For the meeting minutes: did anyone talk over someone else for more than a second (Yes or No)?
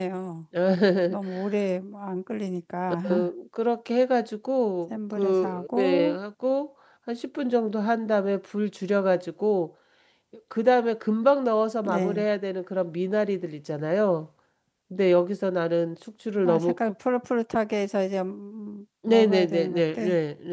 Yes